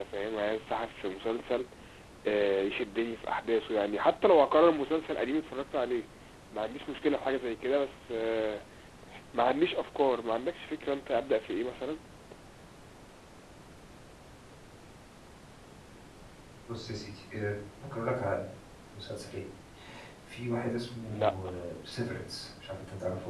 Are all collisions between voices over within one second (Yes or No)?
Yes